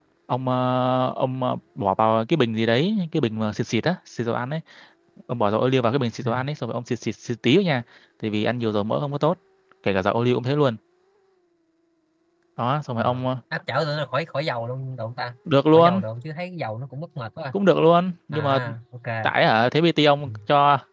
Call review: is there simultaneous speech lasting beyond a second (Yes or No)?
No